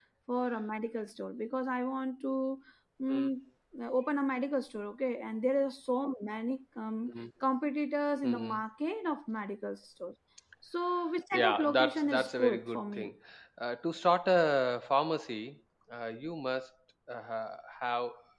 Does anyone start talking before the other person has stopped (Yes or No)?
Yes